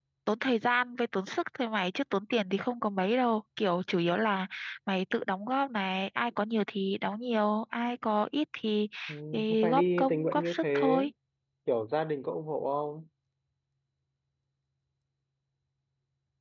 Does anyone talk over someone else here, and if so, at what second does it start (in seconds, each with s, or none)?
9.3 s